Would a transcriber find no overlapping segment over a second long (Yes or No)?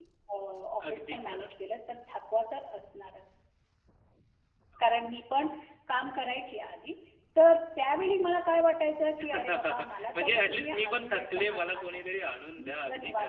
No